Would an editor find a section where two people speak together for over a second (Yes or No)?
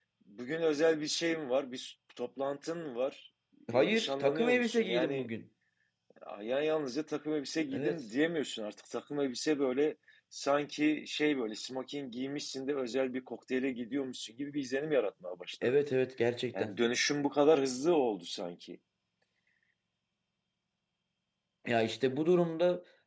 Yes